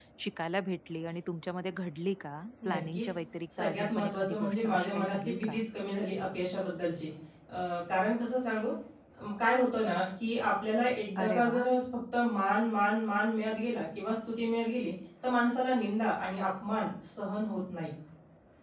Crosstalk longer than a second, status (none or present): present